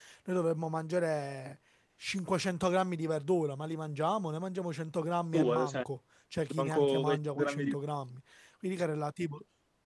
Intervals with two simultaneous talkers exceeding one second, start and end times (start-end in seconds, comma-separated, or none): 6.5-7.8